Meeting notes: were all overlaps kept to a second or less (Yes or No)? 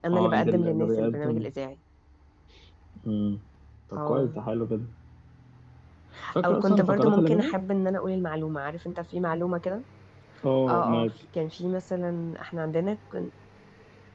No